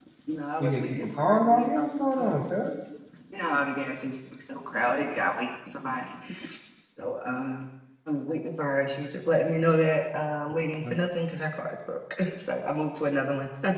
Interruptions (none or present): present